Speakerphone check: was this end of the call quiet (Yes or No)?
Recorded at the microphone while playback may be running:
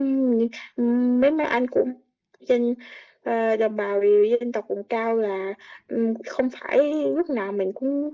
Yes